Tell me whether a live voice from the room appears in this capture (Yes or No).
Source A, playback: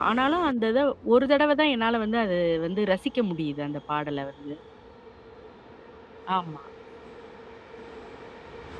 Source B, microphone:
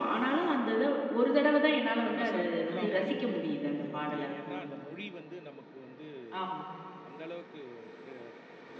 Yes